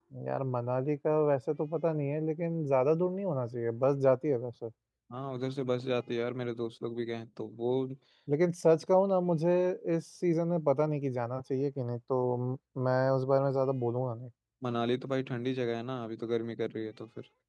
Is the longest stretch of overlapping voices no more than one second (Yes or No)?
Yes